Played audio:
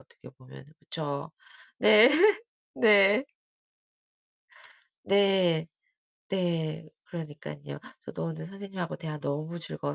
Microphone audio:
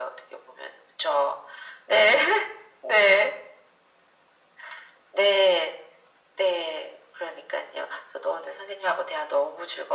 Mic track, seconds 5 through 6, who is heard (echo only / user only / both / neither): echo only